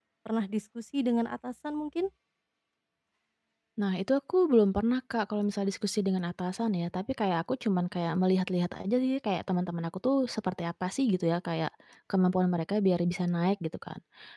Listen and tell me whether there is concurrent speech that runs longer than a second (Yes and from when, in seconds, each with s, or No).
No